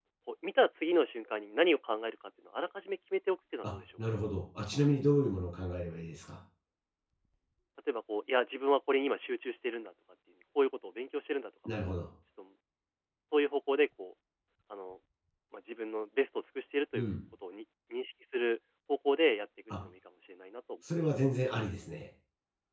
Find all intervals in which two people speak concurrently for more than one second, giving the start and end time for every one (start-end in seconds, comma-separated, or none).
none